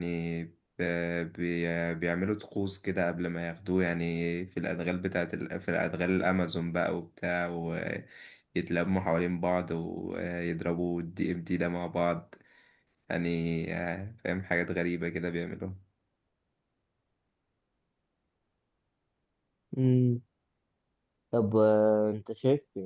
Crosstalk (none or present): none